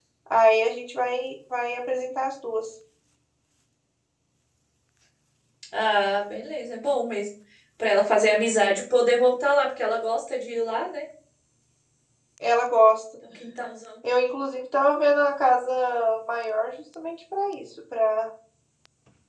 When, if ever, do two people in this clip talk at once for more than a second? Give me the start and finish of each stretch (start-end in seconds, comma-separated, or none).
none